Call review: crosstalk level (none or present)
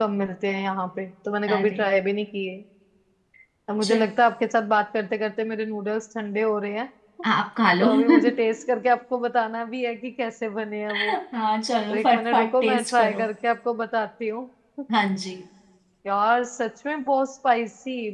present